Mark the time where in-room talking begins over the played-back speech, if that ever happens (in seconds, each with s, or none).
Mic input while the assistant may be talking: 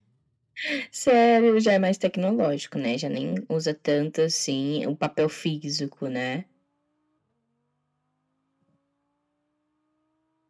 none